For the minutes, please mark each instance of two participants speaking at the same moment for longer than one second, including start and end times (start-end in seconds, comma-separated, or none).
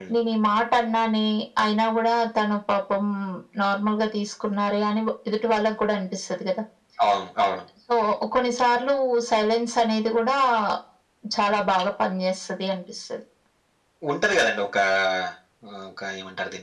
none